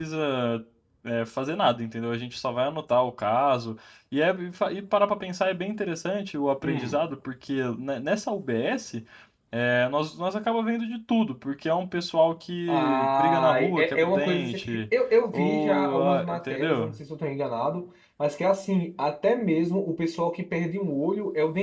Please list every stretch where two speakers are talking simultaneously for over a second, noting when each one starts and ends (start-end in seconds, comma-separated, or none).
12.7-14.6, 15.3-16.9